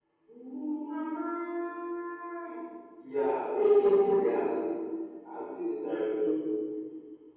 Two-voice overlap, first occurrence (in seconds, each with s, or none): 3.0 s